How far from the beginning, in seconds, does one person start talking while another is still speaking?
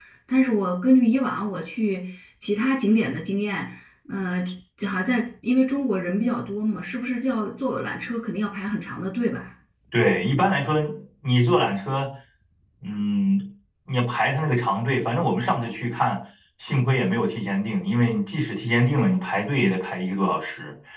none

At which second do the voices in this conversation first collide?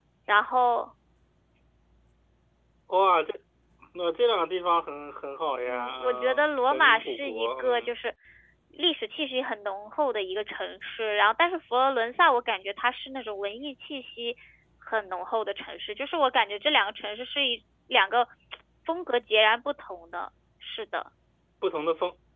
5.7 s

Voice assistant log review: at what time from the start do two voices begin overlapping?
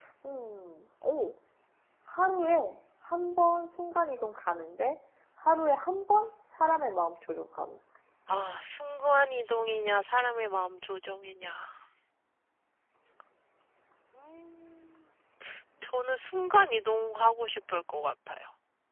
none

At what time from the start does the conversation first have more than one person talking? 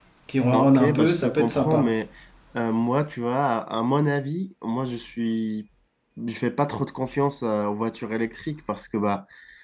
0.5 s

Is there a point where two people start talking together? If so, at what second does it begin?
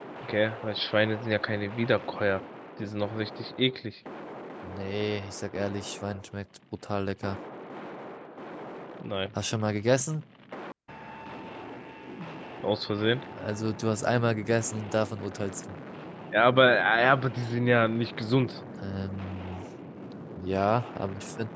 none

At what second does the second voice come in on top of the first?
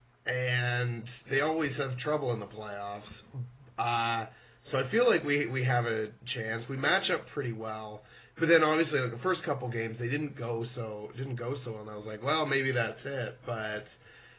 none

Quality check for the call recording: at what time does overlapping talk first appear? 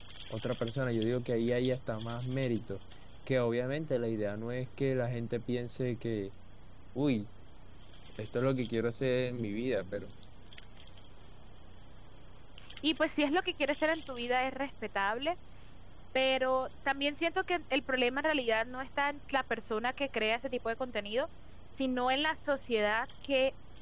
none

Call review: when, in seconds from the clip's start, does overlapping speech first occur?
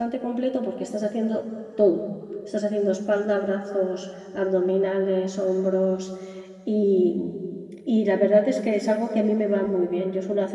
none

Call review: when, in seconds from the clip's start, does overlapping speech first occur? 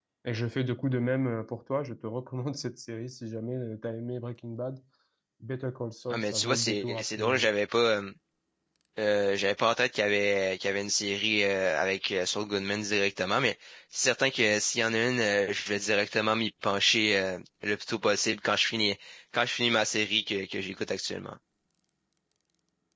6.1 s

